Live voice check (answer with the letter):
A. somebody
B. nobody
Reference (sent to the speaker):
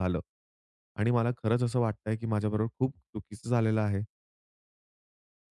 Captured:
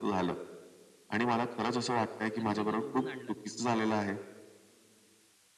A